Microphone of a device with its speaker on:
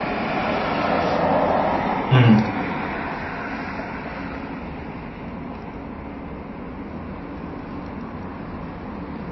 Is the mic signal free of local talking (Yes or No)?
No